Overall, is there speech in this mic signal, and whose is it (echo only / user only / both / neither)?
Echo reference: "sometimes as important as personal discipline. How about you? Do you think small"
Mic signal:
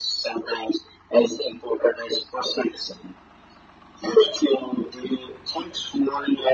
echo only